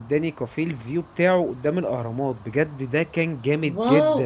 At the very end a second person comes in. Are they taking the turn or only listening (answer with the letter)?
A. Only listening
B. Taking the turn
B